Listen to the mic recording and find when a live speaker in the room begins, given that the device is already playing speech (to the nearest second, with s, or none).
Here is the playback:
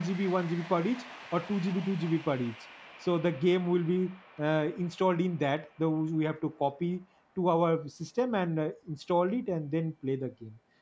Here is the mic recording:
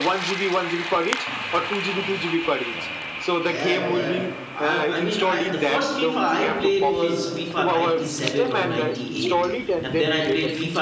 3 s